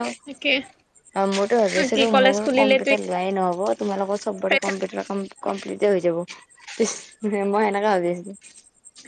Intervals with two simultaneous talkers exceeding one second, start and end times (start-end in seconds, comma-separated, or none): 1.8-3.0